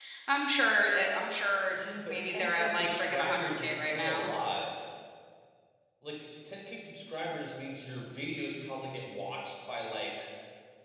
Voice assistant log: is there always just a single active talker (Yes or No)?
No